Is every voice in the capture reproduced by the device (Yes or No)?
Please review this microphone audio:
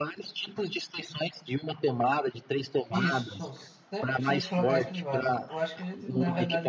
No